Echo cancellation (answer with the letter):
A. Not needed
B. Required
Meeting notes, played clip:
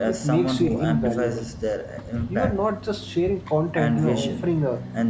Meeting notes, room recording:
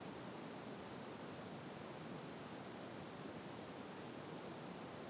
A